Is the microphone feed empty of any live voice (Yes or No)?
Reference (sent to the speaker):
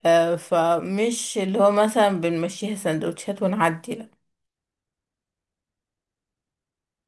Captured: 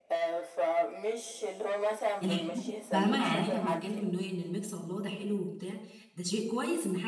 No